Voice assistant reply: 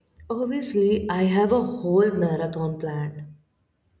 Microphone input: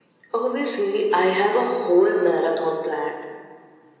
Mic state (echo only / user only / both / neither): echo only